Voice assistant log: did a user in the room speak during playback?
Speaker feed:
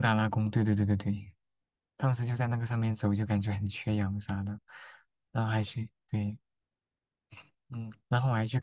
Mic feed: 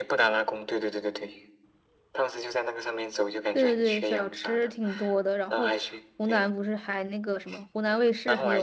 Yes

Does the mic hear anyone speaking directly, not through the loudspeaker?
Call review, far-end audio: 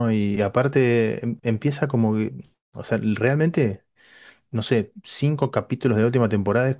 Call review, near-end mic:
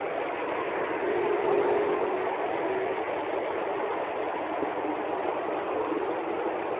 No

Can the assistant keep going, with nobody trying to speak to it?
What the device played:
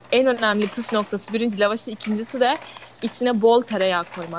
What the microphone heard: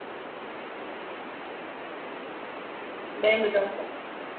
No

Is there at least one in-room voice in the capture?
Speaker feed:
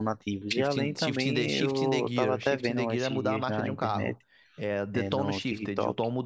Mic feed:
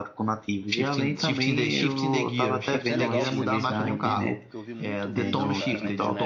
Yes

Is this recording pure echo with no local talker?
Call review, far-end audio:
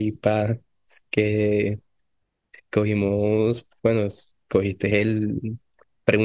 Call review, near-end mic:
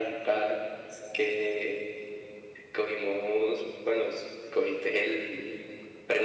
Yes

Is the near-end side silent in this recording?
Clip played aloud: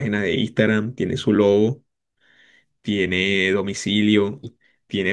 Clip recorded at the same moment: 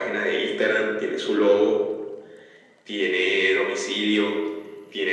Yes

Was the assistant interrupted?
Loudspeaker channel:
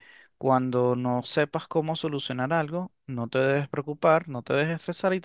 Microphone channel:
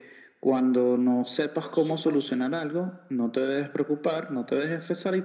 Yes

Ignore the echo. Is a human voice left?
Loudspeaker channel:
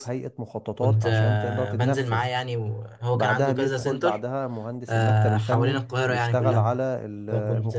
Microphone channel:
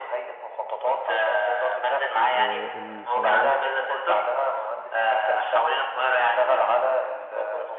Yes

